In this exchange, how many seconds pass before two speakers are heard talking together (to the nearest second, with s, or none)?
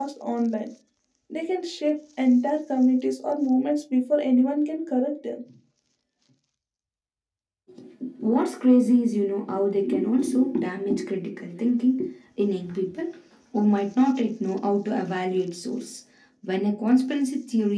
none